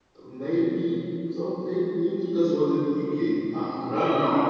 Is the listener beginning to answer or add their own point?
No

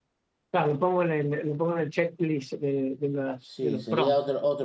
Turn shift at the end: Yes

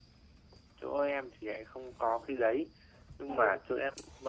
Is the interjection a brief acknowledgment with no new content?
Yes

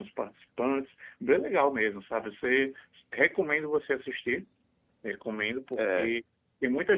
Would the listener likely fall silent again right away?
Yes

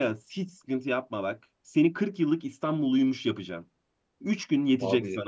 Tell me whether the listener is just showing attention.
Yes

